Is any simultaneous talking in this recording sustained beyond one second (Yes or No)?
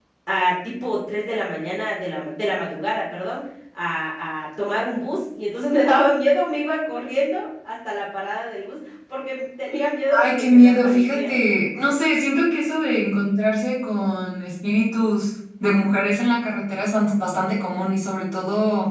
Yes